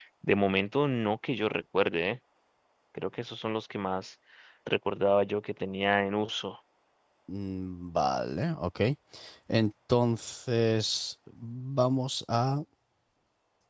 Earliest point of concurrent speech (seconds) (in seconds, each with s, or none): none